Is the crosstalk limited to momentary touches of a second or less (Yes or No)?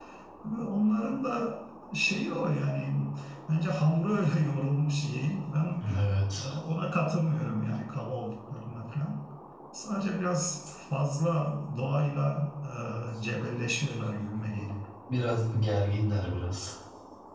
Yes